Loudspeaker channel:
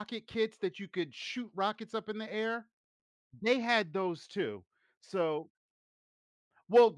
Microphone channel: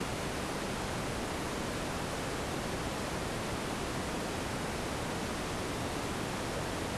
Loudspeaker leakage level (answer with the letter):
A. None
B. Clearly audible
A